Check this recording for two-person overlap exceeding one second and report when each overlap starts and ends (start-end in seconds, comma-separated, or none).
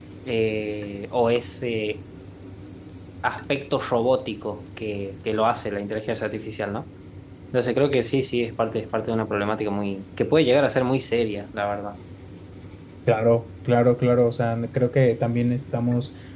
none